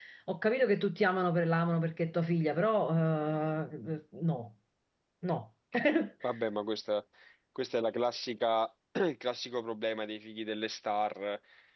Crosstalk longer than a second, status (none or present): none